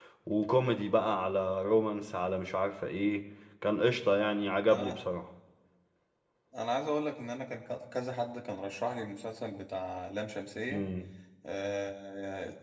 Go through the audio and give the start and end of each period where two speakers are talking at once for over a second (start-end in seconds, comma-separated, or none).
none